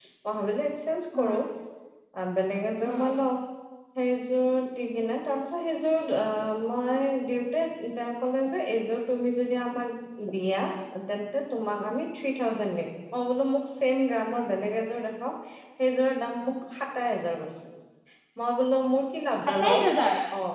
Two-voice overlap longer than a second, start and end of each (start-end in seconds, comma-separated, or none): none